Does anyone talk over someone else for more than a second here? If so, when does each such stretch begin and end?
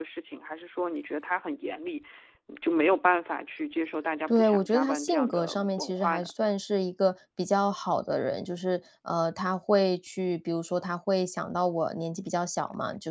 4.3-6.3

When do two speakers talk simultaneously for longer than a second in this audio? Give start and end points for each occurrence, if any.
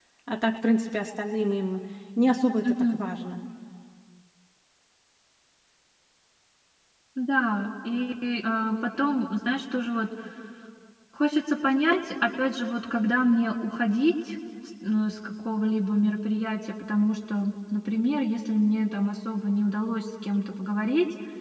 none

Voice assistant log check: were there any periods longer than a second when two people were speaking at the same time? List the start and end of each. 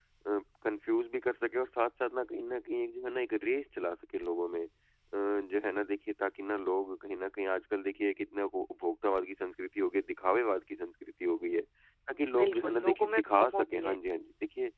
12.1-14.0

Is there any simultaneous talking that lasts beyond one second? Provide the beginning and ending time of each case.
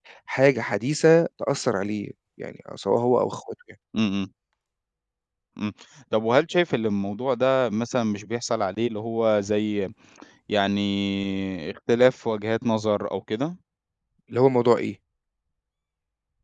none

